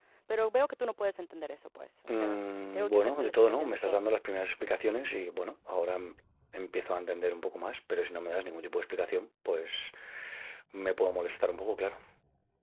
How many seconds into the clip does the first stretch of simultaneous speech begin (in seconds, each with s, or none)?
2.1 s